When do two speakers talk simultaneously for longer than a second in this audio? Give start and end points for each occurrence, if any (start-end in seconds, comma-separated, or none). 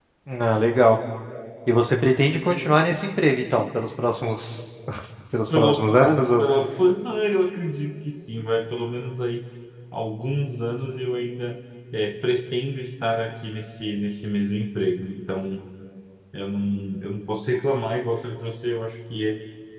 none